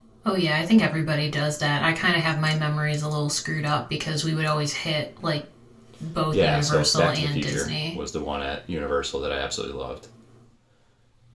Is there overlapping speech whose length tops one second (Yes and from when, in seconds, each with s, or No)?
Yes, from 6.3 s